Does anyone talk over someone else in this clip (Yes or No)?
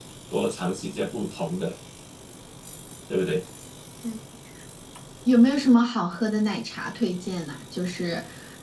No